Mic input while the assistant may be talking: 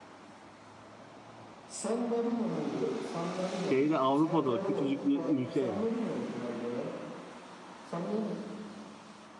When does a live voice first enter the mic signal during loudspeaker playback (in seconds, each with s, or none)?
3.7 s